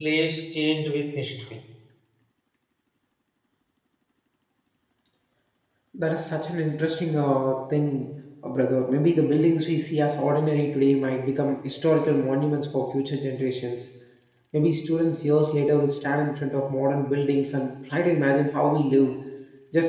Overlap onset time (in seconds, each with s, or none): none